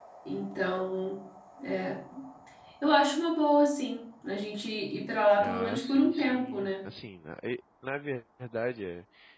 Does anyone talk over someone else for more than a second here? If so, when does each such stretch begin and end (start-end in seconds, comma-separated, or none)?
5.4-6.7